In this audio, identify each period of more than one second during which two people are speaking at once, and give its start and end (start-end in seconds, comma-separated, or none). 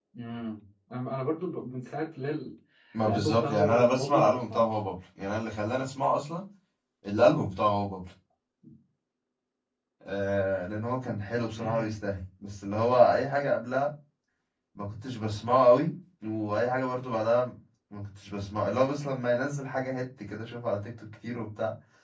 3.0-4.7